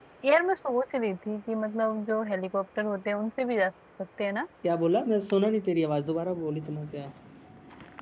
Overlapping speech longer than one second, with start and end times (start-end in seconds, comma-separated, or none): none